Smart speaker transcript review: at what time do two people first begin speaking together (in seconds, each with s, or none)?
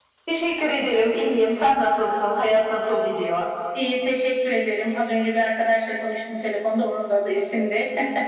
none